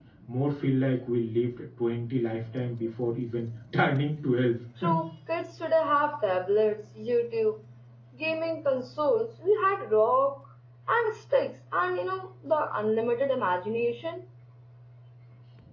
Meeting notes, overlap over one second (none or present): none